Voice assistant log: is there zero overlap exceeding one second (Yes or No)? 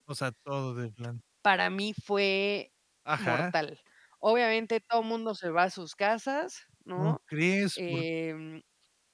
Yes